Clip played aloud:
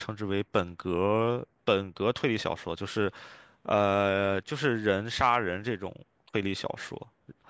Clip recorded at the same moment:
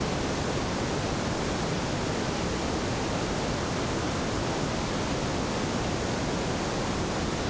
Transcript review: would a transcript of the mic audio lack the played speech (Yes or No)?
Yes